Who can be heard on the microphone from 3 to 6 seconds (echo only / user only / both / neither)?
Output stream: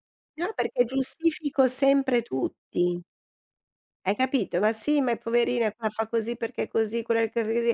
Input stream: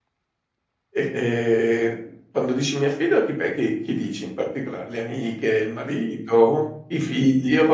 user only